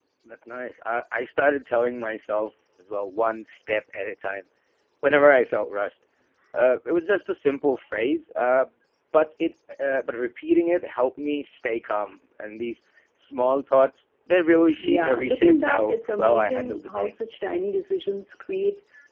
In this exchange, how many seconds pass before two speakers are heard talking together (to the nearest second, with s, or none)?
15 s